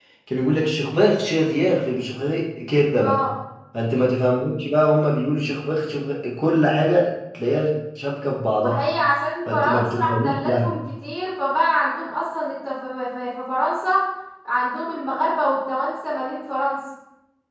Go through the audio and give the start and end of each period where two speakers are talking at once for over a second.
9.5-10.7

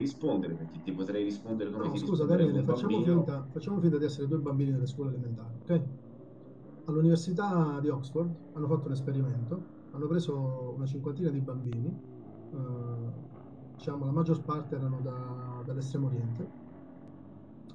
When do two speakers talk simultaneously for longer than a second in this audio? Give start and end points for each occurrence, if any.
1.8-3.3

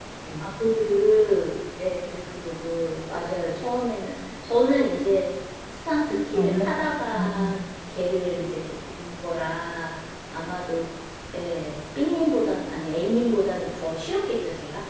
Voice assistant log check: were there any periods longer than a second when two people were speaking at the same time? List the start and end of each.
6.3-7.6

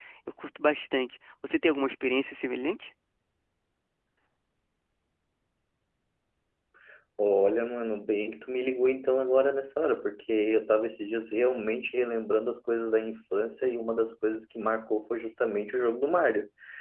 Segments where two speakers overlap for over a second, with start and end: none

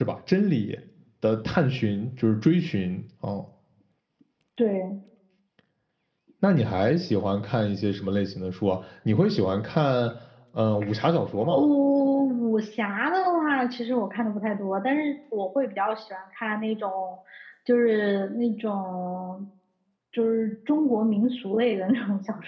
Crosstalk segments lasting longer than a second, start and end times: none

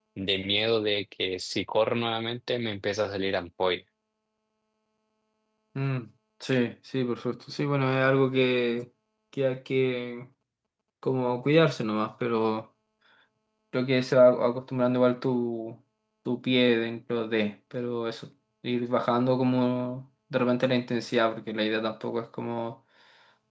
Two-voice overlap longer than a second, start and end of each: none

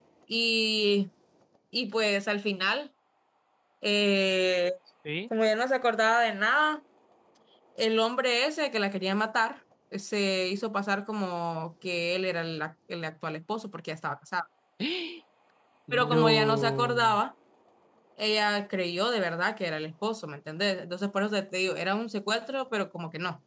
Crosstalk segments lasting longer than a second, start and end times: 15.9-17.2

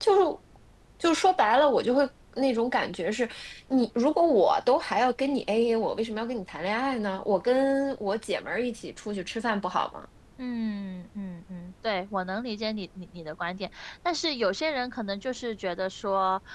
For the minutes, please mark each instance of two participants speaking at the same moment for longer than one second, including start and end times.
none

